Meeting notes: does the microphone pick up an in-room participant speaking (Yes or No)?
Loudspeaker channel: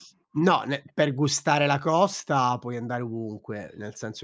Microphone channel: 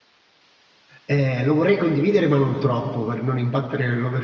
Yes